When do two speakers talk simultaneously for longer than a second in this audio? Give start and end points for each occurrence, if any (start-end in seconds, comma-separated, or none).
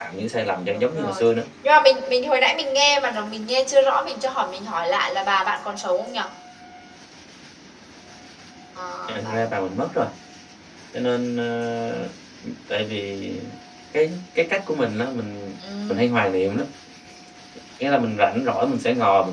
none